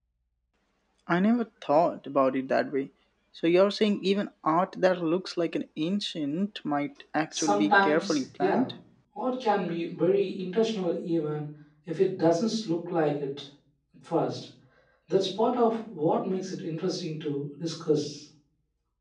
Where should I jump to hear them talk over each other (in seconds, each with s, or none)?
7.3 s